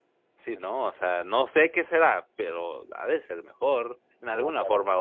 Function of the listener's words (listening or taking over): taking over